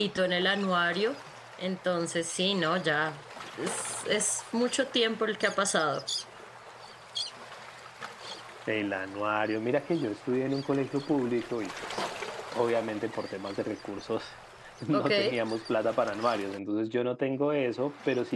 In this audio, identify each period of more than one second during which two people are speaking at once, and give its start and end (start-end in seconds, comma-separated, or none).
none